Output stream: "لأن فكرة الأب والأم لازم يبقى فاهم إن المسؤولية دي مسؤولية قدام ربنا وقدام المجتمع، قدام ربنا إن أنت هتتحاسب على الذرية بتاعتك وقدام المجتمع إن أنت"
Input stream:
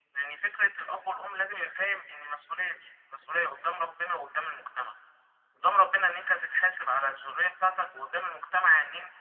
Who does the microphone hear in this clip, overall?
echo only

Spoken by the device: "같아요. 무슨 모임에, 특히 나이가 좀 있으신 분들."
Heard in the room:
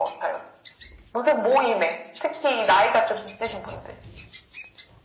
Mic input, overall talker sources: echo only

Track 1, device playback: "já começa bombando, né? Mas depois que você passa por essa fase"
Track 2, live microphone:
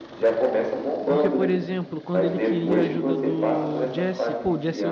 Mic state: both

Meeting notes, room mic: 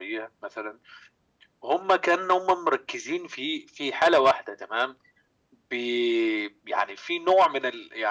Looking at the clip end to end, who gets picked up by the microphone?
echo only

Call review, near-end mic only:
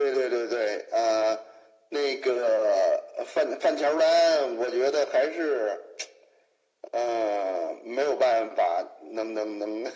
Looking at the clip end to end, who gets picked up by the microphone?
echo only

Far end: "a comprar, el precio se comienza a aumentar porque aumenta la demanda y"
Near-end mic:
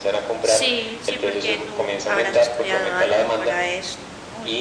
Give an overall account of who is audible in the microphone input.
both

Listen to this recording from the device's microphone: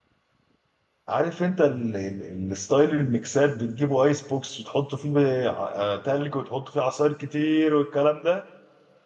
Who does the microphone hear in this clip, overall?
user only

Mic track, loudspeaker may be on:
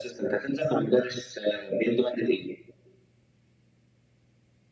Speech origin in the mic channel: echo only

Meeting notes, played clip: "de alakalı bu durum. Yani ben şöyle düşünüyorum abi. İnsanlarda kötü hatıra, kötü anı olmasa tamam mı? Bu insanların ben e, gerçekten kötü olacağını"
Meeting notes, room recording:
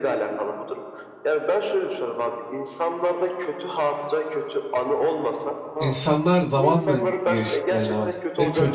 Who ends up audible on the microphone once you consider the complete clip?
both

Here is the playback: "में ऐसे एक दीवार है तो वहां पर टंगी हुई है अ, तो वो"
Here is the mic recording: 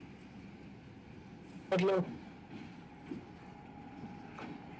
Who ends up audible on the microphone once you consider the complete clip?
user only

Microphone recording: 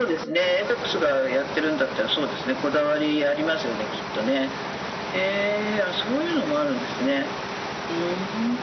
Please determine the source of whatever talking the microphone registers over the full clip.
echo only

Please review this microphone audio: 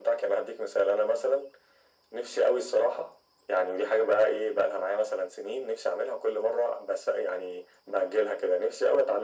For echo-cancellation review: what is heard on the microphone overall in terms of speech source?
echo only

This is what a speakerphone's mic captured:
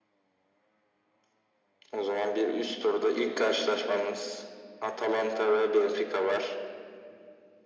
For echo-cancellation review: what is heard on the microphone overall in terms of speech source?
echo only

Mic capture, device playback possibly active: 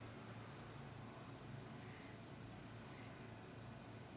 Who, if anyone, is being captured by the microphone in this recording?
neither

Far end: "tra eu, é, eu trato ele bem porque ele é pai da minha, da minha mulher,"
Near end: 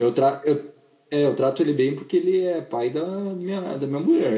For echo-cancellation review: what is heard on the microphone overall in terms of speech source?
echo only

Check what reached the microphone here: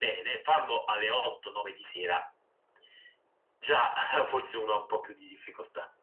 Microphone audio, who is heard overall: echo only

